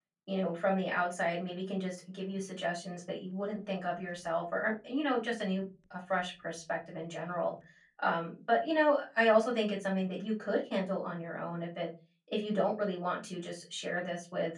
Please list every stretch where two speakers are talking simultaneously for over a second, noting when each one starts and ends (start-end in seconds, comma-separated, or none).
none